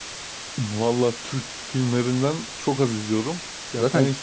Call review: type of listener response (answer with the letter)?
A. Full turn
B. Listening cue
B